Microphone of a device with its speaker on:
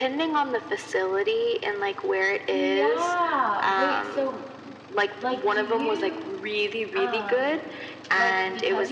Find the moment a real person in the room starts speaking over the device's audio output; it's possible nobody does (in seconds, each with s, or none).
2.5 s